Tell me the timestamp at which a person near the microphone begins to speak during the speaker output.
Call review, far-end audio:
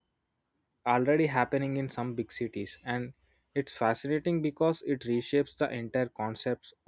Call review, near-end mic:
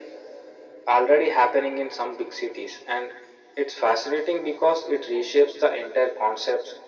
none

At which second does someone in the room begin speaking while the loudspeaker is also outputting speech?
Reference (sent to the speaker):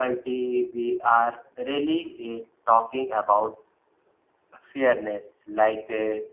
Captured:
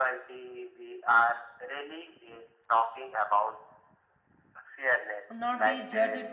5 s

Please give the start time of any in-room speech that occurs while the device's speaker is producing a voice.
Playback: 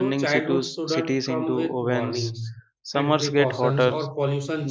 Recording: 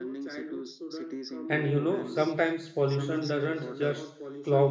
1 s

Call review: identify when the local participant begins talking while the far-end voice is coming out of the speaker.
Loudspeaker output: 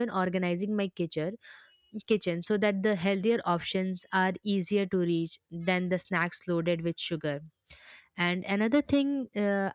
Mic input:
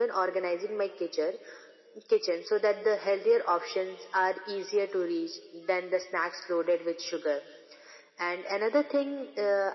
none

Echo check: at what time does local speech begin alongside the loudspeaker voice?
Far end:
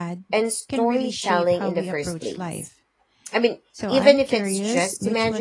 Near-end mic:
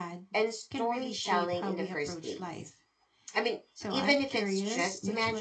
none

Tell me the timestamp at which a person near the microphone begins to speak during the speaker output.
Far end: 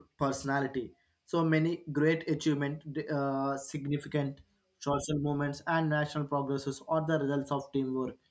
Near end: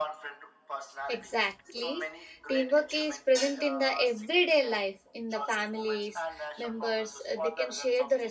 1 s

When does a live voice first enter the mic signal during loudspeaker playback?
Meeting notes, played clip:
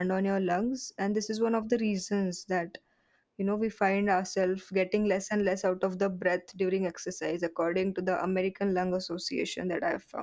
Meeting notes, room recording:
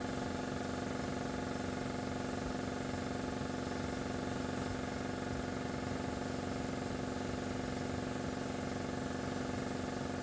none

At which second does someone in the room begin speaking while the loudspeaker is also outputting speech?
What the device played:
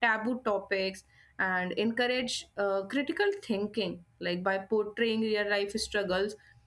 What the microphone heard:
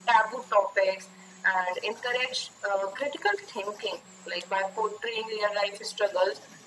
none

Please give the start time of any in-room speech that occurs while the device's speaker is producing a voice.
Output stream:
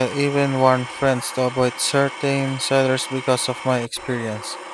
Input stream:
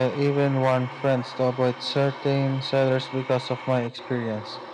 none

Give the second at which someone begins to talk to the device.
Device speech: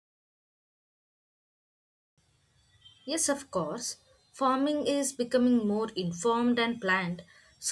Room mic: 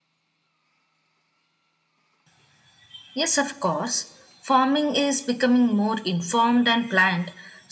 none

